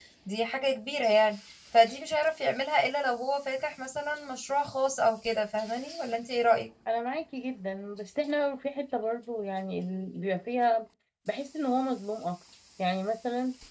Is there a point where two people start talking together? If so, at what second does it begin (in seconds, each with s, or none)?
none